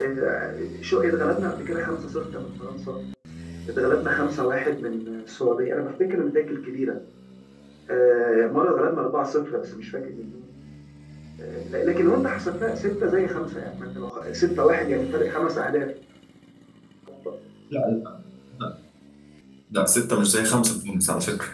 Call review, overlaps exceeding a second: none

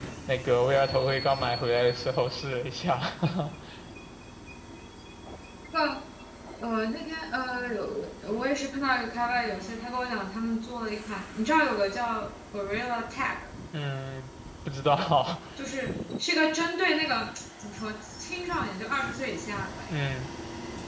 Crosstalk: none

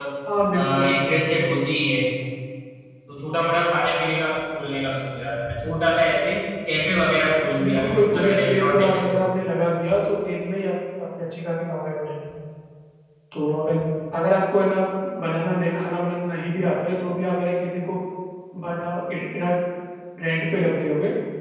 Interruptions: present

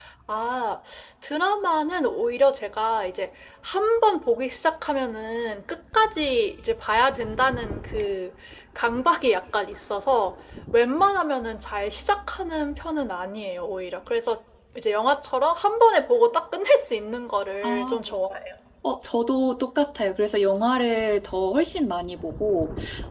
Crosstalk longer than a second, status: none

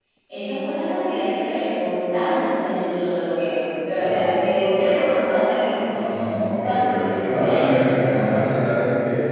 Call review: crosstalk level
present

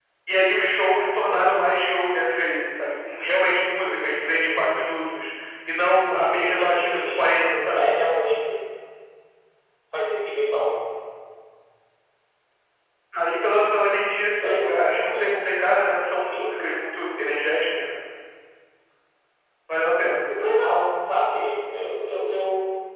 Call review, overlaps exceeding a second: present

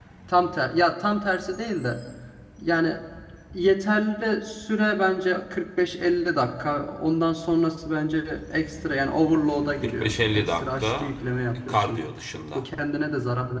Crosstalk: present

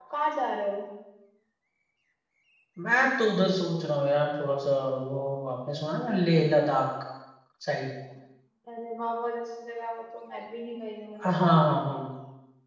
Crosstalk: none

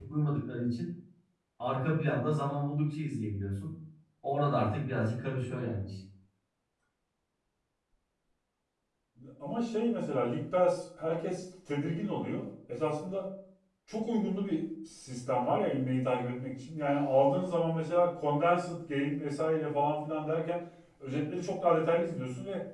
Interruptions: none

